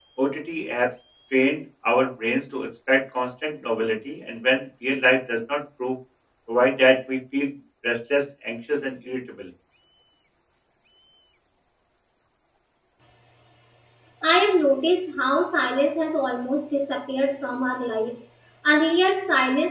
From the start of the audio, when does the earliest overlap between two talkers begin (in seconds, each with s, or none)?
none